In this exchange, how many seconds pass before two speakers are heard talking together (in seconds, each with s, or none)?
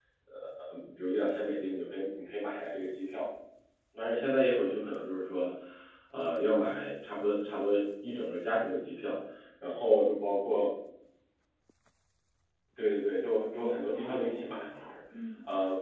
13.5 s